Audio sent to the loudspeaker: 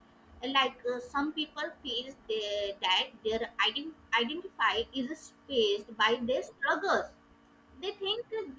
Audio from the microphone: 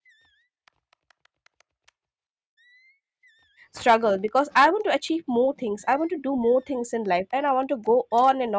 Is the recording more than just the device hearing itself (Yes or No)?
Yes